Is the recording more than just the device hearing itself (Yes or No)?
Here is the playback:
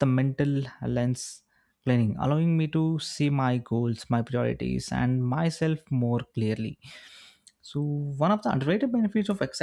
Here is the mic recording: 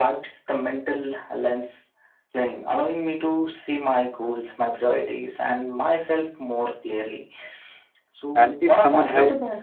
Yes